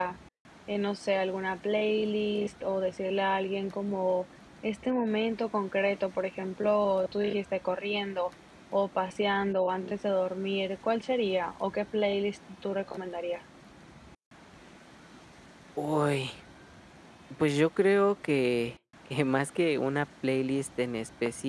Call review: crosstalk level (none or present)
none